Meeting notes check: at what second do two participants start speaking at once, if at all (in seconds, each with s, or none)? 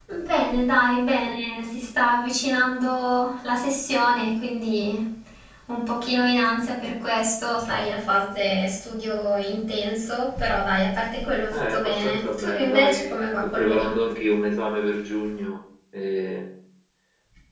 11.5 s